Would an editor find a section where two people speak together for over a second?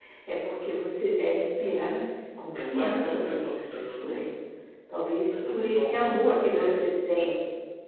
Yes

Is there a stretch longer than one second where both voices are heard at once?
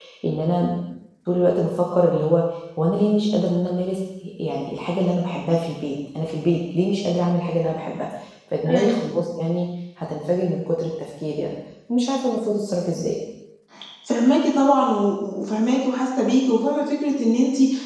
No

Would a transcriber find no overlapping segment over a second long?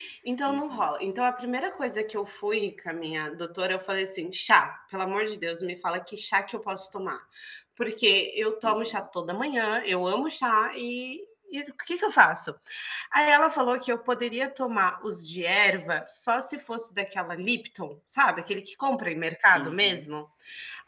Yes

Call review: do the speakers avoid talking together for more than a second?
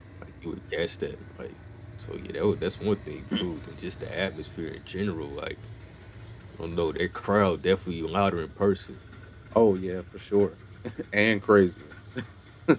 Yes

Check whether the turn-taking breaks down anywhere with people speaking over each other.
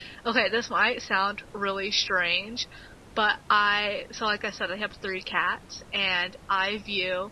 No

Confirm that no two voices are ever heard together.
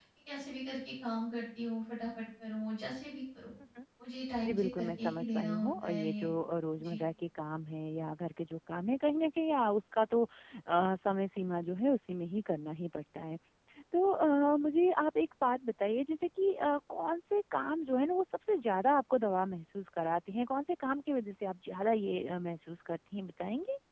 No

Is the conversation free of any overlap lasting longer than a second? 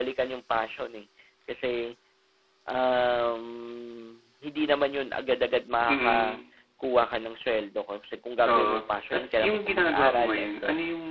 No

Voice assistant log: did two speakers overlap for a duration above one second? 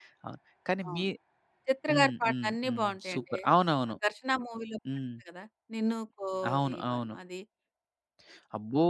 Yes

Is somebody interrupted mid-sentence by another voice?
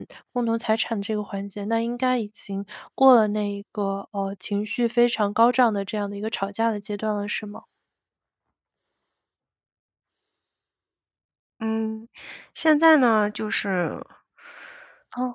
No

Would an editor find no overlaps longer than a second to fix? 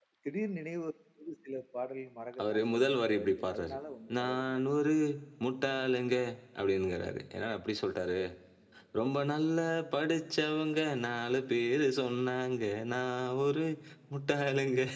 No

